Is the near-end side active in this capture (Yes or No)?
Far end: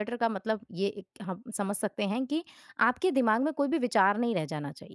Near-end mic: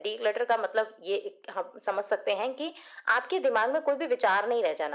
No